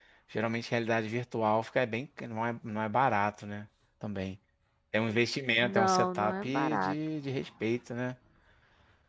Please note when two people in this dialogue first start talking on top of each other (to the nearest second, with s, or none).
6 s